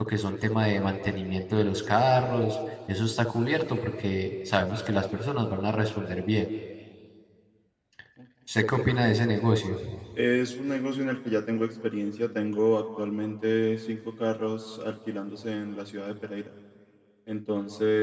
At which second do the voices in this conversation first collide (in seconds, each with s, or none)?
none